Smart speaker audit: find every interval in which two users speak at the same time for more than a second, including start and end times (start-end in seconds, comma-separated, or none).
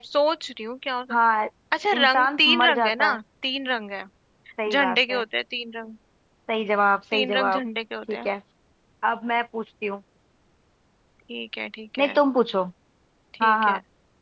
1.9-3.2